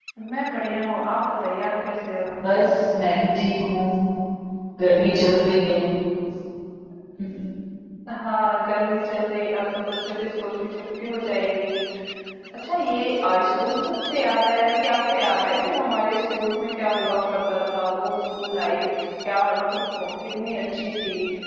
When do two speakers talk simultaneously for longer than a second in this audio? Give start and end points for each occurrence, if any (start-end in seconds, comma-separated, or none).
none